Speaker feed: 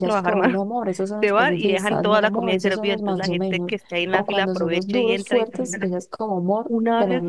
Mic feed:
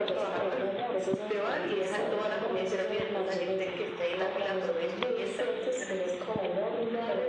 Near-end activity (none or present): none